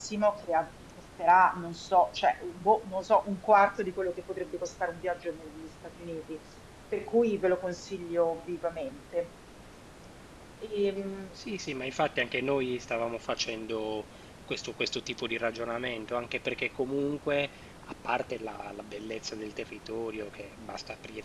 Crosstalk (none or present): none